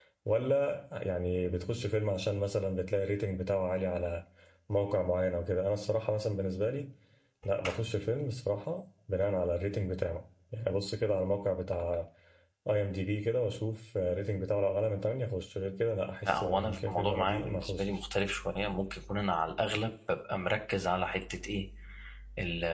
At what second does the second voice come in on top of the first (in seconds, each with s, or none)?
16.3 s